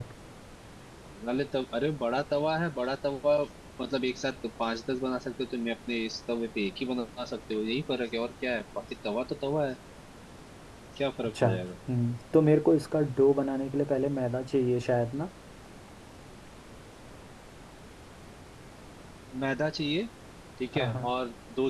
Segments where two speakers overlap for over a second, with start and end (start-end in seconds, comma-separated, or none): none